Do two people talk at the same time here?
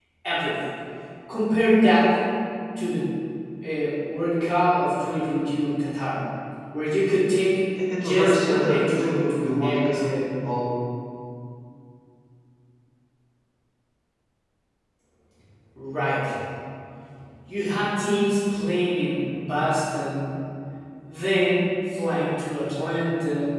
Yes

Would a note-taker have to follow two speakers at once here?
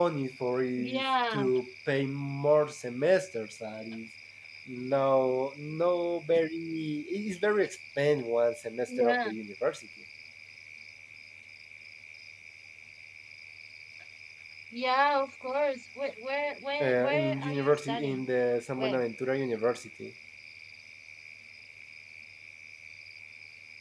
Yes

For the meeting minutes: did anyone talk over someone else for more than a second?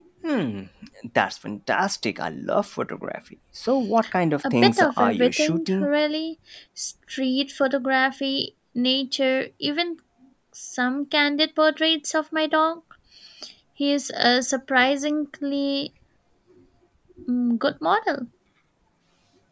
Yes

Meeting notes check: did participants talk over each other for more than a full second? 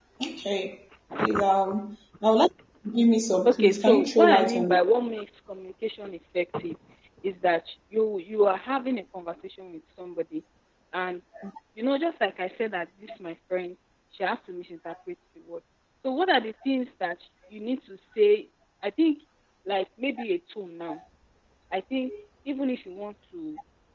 Yes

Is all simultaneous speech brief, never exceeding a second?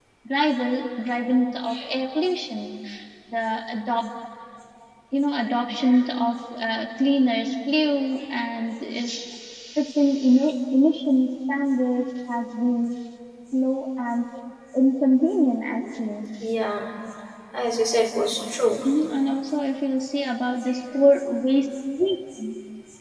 Yes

